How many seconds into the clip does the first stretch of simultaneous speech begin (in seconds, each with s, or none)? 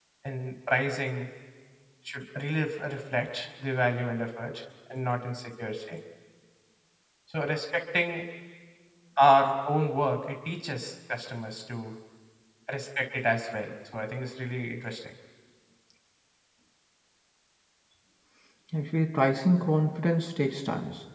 none